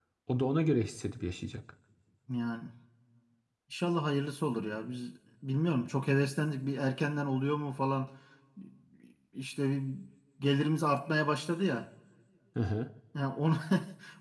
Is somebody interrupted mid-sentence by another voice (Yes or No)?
No